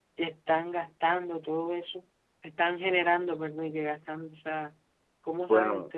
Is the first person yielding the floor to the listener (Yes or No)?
Yes